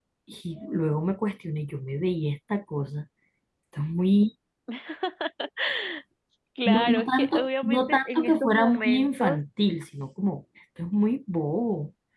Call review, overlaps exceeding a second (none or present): present